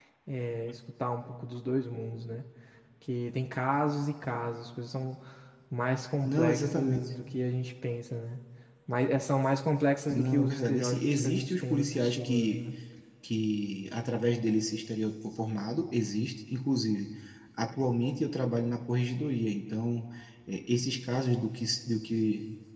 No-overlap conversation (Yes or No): No